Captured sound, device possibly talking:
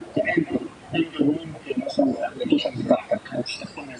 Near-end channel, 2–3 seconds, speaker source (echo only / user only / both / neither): echo only